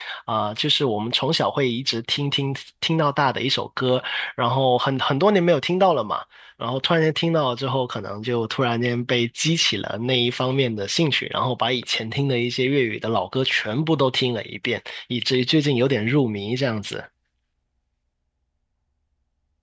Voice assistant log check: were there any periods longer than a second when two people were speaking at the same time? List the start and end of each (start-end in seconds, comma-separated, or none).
none